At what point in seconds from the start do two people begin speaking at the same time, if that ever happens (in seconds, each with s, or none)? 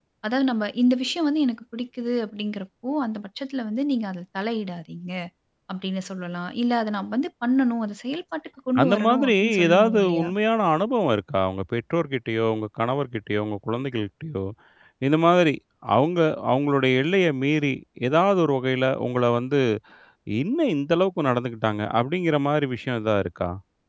8.8 s